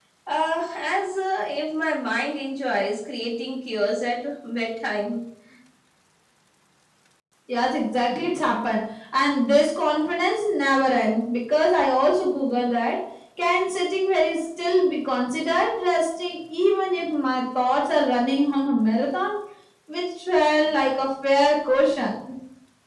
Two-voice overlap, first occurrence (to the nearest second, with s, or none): none